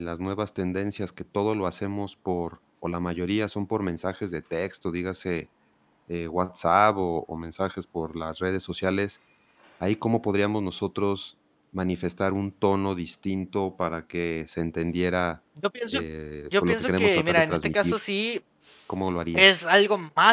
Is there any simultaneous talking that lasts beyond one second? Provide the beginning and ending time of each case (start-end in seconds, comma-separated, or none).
16.6-17.9